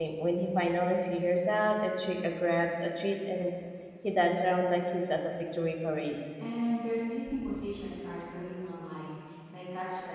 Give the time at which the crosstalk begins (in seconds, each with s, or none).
none